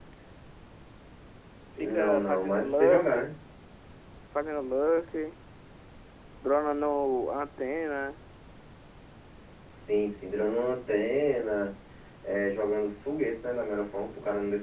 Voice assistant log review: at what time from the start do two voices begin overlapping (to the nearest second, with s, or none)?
2 s